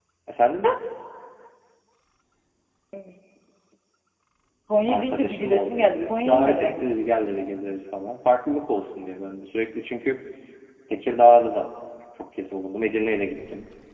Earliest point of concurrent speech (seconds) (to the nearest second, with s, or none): 5 s